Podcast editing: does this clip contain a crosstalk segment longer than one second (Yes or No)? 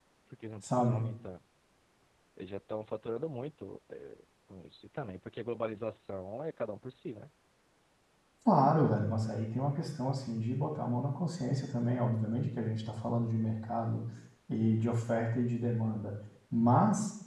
No